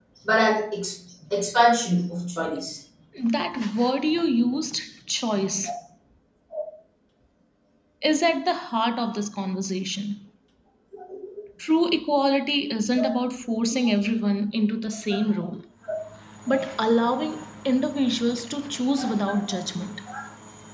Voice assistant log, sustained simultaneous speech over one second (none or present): none